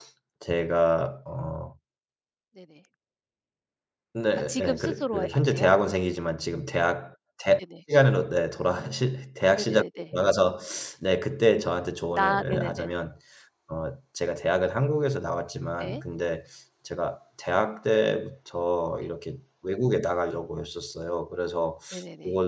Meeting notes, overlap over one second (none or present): present